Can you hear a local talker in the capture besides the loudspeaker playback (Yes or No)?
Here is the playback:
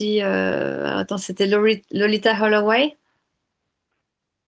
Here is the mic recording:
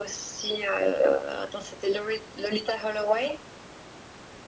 No